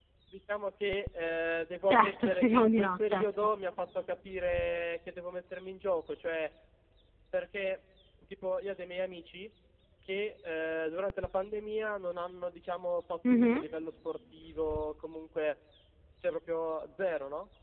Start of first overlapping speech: 2 s

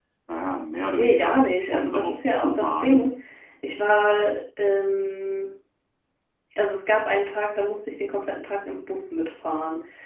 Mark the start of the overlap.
1 s

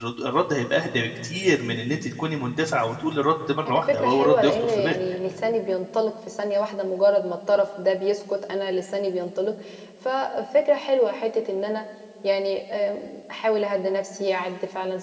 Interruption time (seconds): 4 s

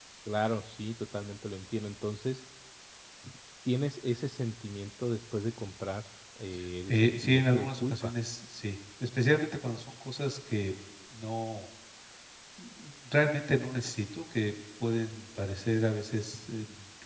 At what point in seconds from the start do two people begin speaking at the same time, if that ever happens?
7 s

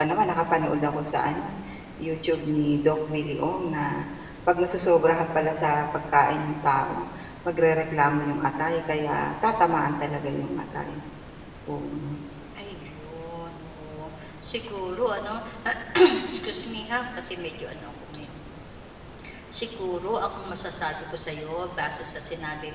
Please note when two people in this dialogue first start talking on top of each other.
none

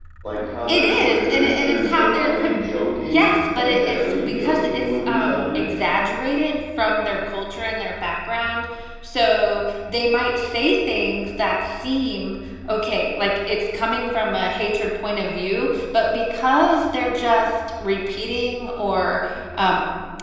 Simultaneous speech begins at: 1 s

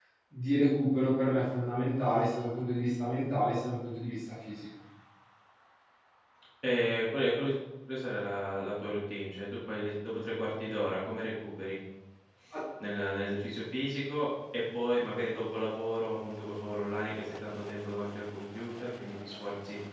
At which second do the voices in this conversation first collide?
none

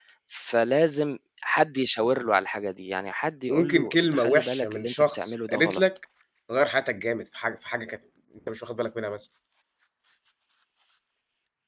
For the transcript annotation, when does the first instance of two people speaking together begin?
3 s

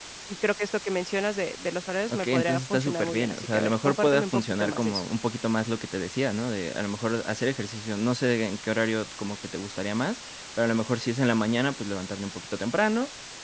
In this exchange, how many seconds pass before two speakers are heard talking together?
2 s

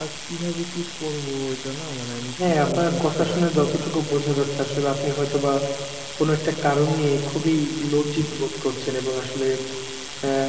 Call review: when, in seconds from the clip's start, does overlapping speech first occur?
2 s

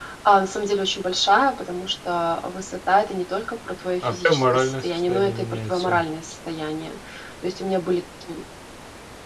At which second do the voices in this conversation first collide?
4 s

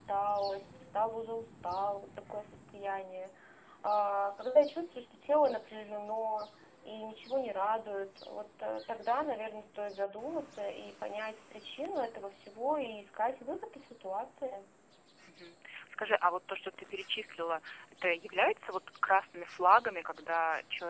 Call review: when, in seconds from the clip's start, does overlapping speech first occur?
none

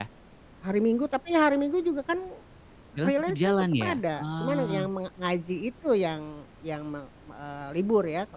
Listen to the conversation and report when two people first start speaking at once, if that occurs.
3 s

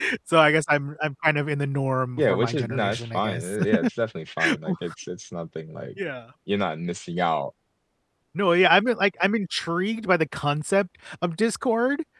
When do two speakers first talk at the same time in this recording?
2 s

